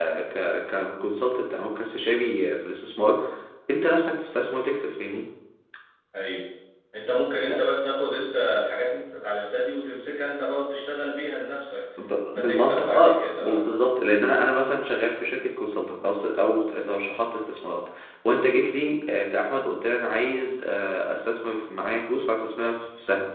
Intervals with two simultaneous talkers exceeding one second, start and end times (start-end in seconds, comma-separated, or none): 12.3-13.7